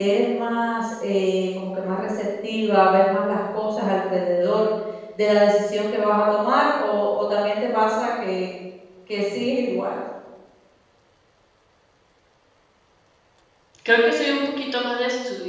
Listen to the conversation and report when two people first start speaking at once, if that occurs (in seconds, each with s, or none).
none